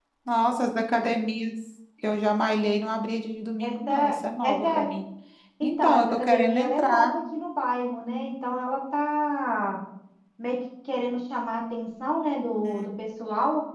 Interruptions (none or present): present